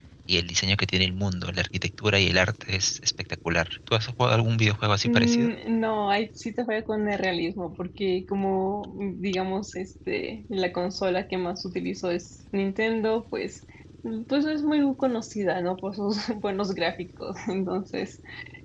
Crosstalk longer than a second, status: none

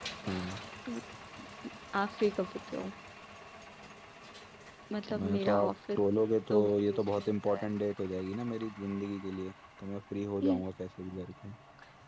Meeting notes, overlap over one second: present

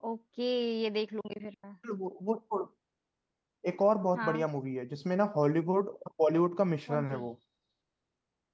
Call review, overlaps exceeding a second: none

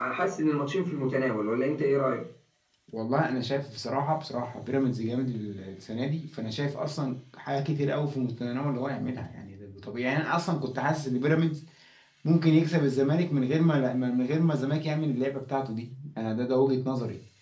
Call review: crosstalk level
none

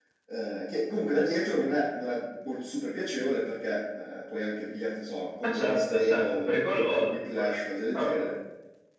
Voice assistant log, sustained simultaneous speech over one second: present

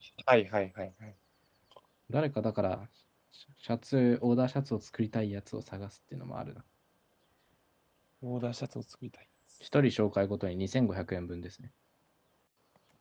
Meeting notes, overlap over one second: none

